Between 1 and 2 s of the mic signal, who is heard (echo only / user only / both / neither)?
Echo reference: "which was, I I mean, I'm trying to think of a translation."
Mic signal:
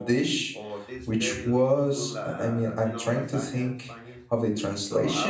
both